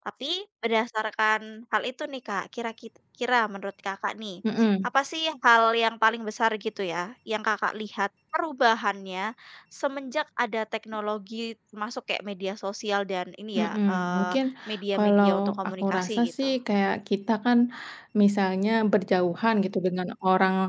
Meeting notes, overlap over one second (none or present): present